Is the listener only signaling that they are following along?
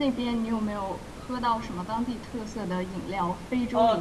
No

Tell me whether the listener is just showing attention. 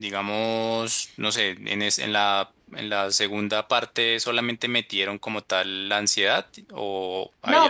No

